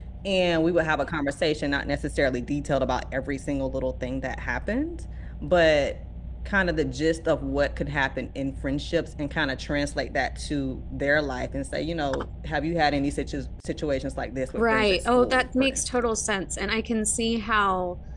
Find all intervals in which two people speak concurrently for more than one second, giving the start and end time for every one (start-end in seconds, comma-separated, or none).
14.6-16.2